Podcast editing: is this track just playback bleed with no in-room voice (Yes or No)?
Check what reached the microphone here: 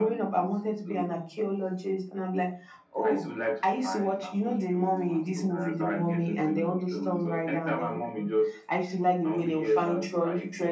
Yes